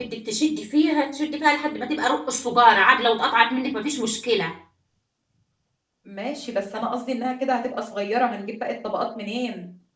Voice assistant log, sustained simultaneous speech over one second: none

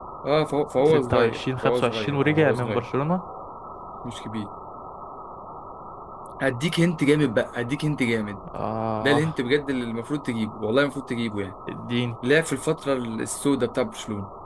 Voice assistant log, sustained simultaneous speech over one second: present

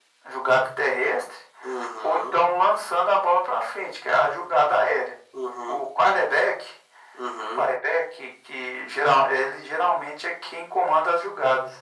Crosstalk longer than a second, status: none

